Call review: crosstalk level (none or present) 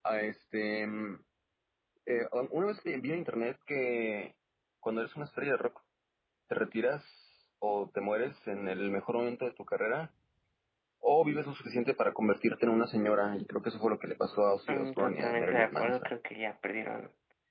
present